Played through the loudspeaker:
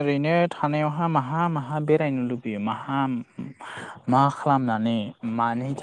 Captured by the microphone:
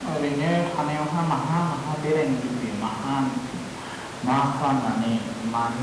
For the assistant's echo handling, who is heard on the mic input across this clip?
echo only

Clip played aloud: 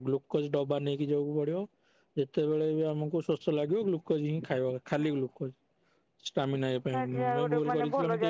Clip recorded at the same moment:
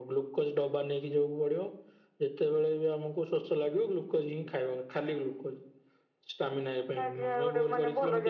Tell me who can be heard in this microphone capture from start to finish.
echo only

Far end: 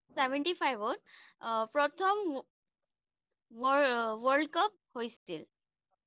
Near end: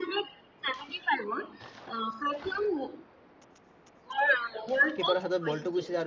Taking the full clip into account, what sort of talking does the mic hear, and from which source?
both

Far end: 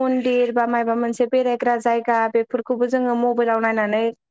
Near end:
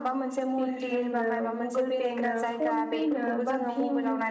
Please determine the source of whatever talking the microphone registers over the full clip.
both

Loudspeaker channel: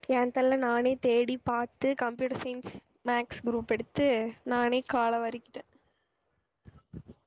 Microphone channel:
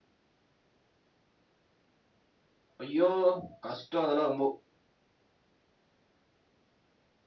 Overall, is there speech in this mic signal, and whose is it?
user only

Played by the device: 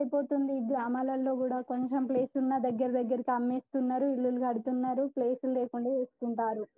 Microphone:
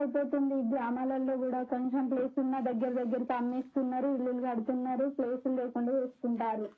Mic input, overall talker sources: echo only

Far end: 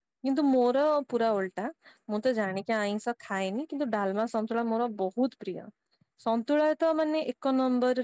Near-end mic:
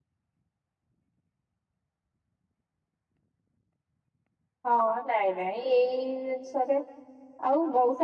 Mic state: user only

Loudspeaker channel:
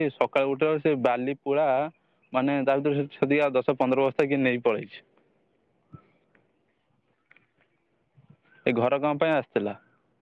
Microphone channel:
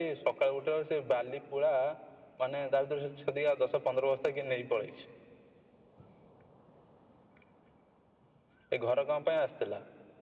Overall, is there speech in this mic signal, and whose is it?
echo only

